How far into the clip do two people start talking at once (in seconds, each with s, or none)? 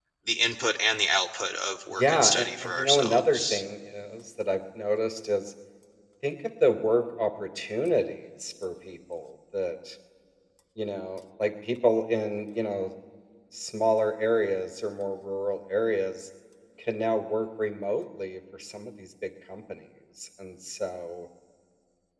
1.9 s